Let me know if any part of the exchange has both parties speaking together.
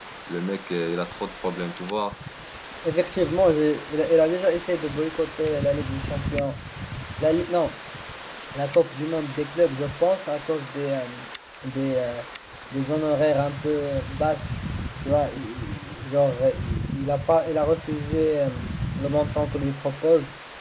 No

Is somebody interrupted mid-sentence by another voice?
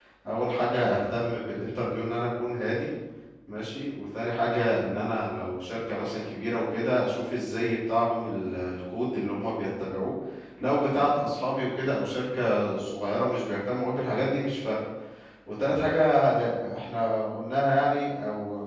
No

